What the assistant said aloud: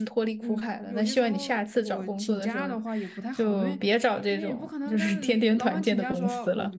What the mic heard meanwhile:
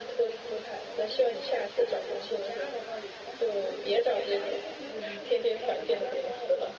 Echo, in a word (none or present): present